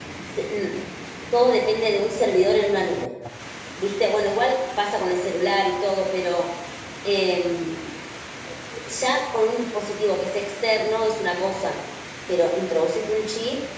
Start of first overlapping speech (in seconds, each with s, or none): none